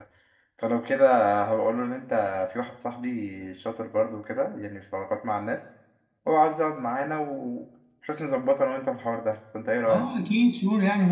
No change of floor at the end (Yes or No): No